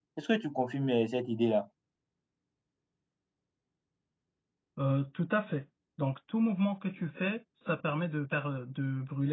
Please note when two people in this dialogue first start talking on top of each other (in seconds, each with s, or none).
none